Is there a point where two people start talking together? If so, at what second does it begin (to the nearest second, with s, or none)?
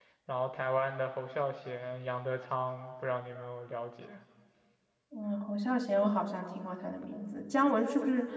none